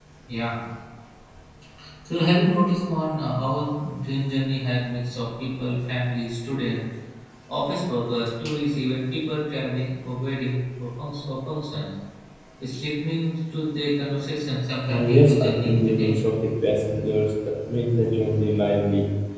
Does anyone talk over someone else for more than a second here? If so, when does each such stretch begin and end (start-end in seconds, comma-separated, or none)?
14.9-16.3